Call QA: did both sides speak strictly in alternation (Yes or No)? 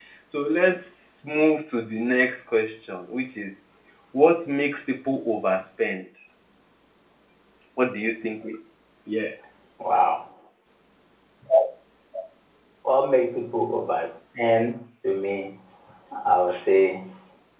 Yes